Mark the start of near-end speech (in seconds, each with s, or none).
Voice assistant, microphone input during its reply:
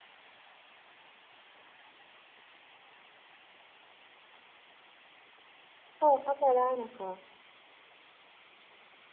6.0 s